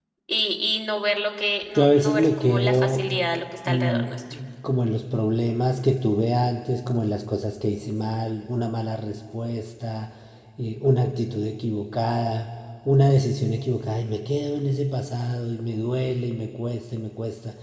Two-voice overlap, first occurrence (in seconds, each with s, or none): 1.8 s